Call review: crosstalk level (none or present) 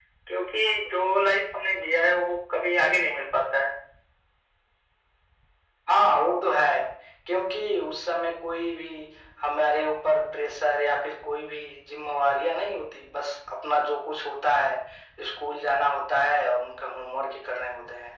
none